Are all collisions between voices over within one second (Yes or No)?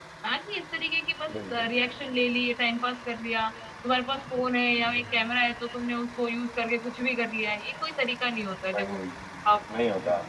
Yes